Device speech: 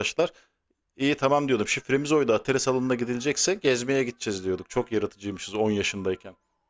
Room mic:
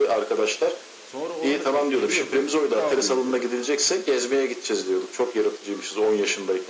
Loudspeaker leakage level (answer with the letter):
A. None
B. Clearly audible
B